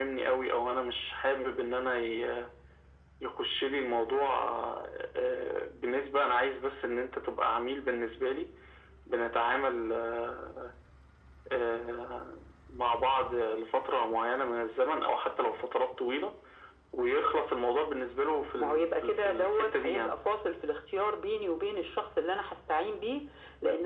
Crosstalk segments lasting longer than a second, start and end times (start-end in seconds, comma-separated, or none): 18.6-20.1